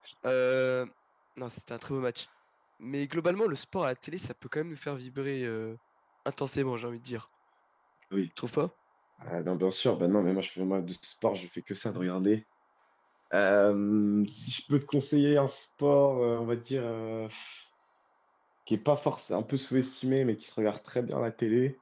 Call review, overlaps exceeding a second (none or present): none